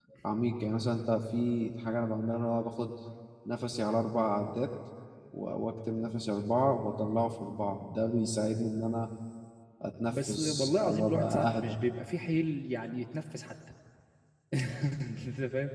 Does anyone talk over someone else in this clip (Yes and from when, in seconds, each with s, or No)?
Yes, from 10.1 s